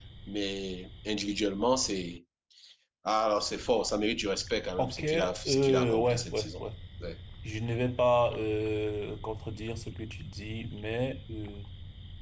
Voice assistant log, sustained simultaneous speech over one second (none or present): present